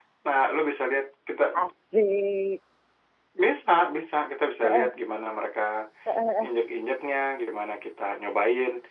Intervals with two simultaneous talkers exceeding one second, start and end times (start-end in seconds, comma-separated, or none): none